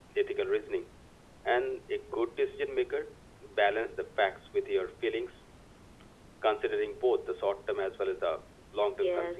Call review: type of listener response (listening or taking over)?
taking over